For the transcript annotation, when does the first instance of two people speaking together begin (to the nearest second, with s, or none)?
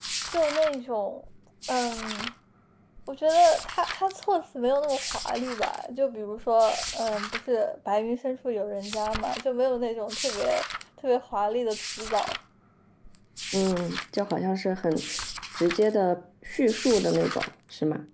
none